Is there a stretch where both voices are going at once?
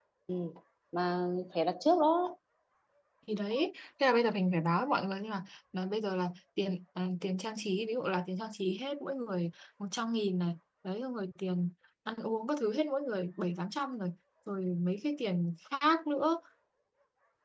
No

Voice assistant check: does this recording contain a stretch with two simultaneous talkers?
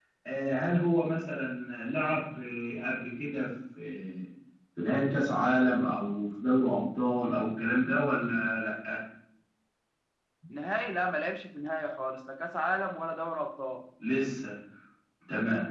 No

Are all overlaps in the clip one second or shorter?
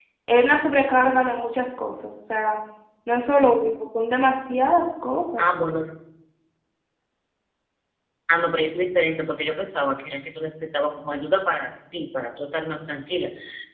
Yes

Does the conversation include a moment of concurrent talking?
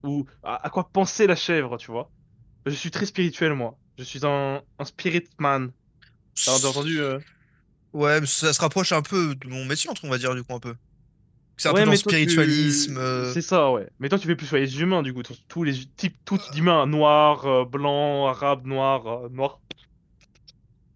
Yes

